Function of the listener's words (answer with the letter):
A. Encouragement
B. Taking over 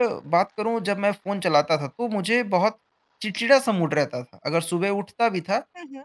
A